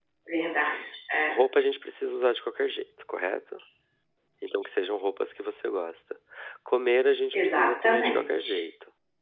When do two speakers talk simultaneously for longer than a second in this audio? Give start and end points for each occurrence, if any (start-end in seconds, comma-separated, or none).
7.3-8.6